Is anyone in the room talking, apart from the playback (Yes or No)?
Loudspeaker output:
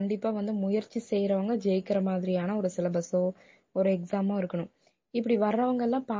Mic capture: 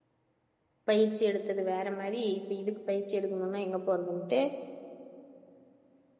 Yes